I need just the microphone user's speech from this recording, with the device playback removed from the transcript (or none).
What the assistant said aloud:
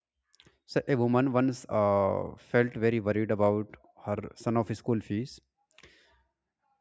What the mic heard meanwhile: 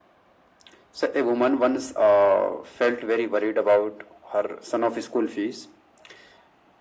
none